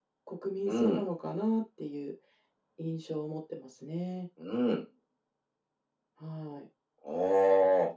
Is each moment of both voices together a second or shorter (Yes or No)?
Yes